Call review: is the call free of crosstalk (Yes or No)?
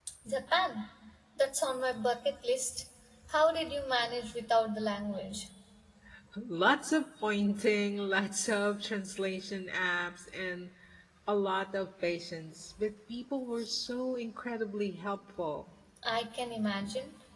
Yes